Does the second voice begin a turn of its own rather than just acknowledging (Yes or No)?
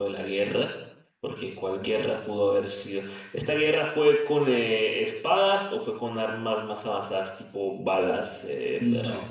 Yes